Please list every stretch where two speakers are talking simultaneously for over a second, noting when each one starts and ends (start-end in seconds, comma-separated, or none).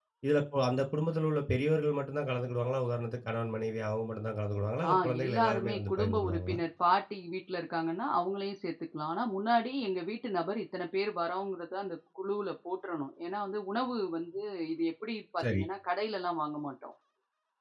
4.9-6.6